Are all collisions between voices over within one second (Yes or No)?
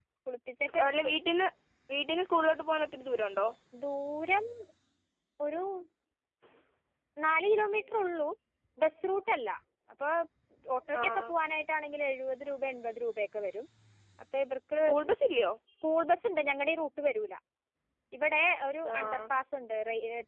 Yes